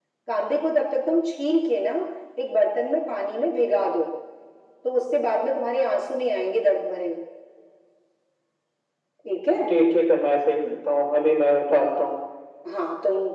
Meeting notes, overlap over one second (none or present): none